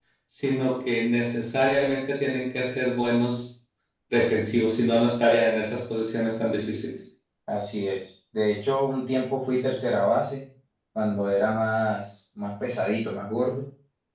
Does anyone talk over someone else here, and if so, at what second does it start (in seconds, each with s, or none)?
none